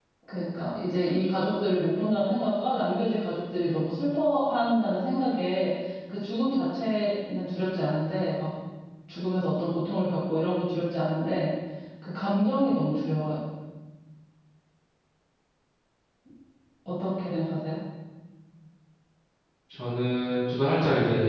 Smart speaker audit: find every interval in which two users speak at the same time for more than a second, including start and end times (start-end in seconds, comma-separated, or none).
none